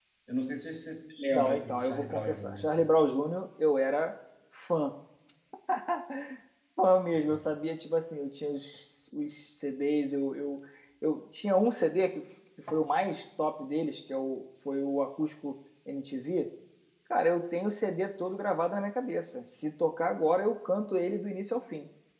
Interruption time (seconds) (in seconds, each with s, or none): 1.3 s